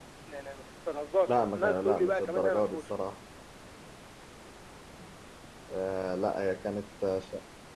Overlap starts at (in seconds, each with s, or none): 1.3 s